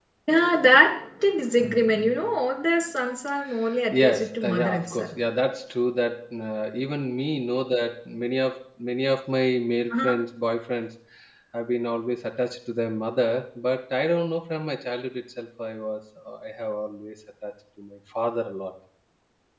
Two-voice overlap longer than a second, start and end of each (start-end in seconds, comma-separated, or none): 3.9-5.2